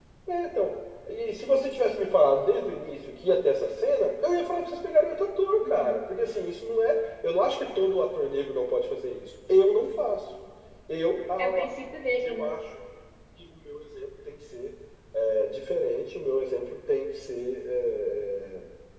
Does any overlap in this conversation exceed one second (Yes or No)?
No